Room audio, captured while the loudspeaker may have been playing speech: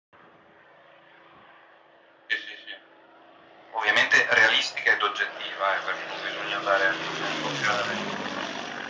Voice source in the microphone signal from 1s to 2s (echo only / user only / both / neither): neither